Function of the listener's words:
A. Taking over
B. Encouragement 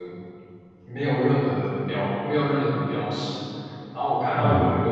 B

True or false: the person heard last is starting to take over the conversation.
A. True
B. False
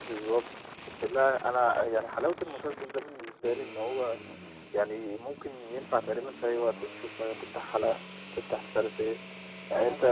B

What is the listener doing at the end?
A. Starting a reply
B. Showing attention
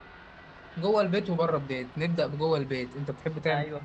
A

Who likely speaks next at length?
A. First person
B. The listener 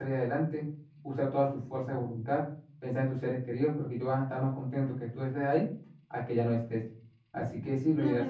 B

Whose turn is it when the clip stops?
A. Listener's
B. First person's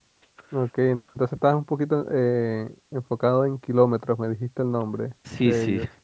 A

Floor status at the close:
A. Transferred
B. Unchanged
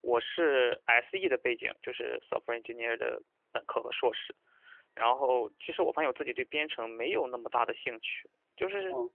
B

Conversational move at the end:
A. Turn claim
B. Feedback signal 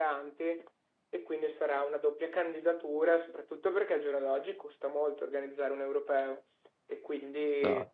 B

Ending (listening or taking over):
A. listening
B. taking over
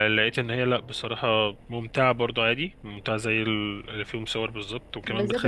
B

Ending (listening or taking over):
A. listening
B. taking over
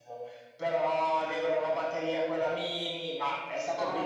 A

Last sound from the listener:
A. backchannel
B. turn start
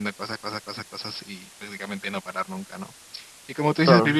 A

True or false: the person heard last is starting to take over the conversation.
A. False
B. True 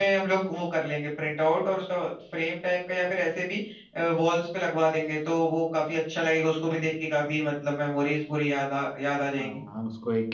B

